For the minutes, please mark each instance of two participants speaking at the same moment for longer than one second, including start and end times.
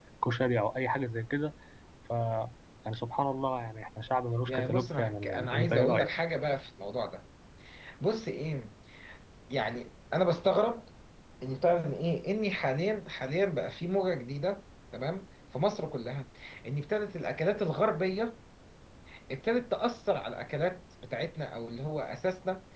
4.5-6.1

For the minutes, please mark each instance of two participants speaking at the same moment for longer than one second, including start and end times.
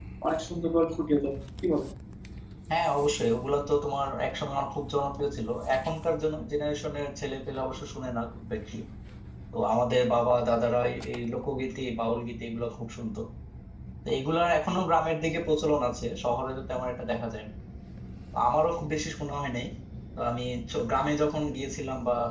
none

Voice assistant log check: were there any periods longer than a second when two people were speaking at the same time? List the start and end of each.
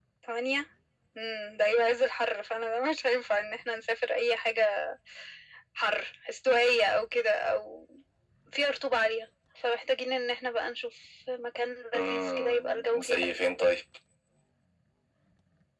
11.9-13.3

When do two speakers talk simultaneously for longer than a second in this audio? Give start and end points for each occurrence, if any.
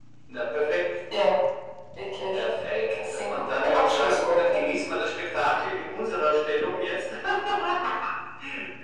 3.0-4.7

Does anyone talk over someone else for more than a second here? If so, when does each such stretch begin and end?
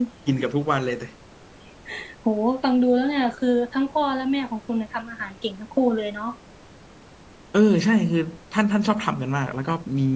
none

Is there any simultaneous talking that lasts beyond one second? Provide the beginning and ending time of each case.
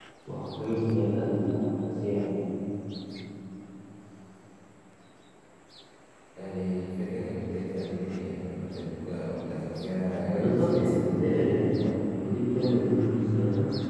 10.2-11.5

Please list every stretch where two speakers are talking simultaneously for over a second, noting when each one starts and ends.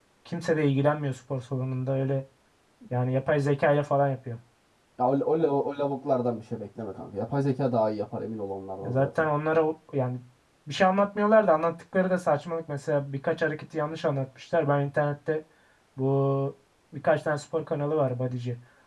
none

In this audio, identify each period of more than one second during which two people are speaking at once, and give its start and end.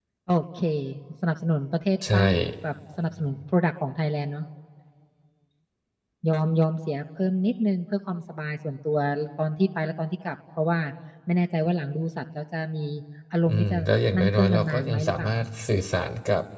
14.2-15.4

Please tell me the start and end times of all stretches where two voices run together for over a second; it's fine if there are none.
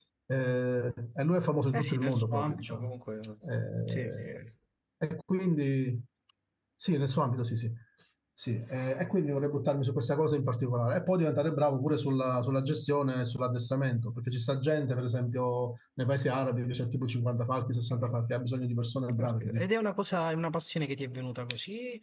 1.7-2.9

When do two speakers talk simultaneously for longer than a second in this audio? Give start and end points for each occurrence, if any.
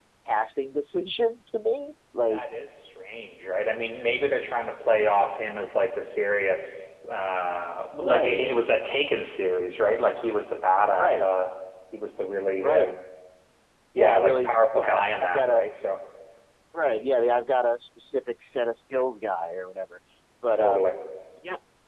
14.0-15.6

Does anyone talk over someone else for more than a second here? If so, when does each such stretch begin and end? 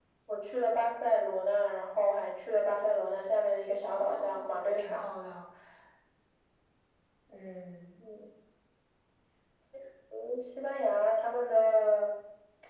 3.8-5.0

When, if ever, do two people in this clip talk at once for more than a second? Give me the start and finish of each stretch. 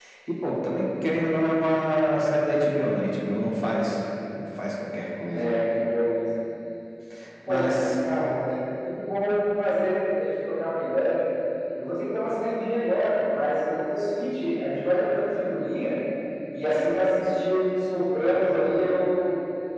none

